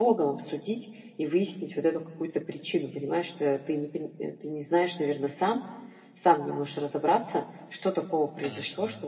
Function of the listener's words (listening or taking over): listening